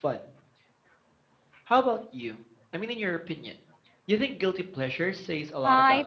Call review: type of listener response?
taking over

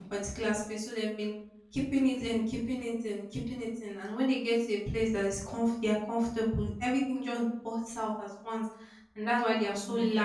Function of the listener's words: listening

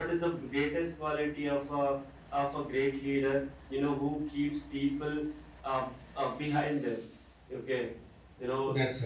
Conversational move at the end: listening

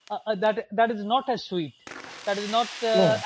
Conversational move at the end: listening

